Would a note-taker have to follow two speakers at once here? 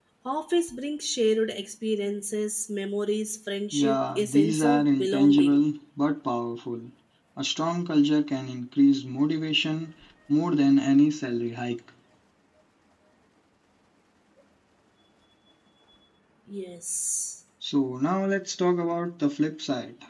Yes, from 3.7 s

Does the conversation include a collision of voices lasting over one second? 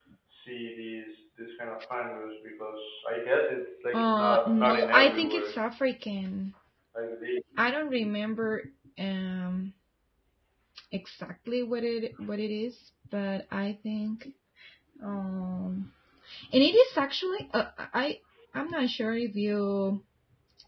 Yes, from 3.9 s

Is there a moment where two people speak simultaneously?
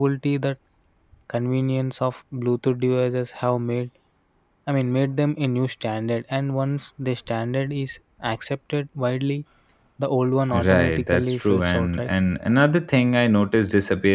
Yes, from 10.5 s

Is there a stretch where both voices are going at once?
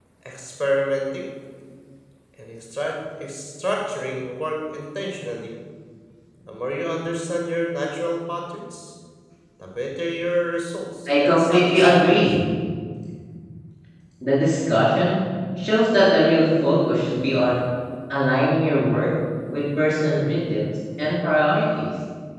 Yes, from 11.1 s

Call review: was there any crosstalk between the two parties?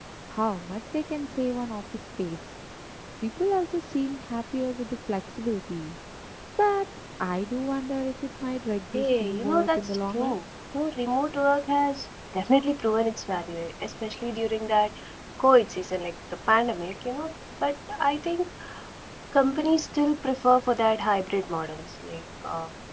Yes, from 8.9 s

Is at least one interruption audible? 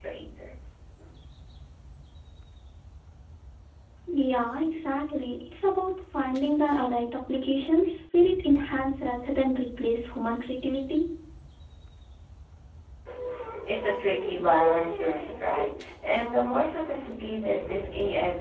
No

